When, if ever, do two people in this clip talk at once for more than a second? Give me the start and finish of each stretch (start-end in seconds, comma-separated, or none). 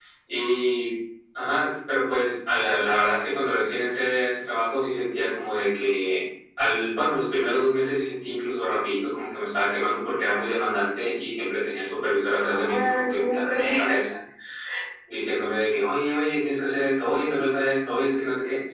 12.4-13.9